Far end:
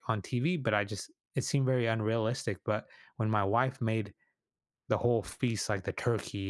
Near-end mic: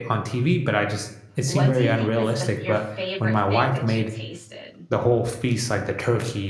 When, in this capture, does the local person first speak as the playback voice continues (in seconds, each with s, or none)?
1.4 s